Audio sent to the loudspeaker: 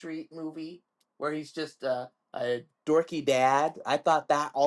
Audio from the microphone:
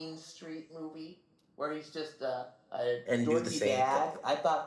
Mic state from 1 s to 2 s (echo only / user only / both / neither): echo only